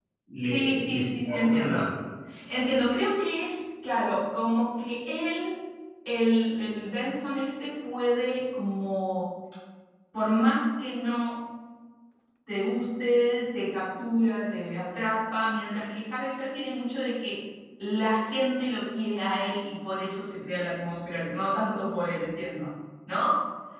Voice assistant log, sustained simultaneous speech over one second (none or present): present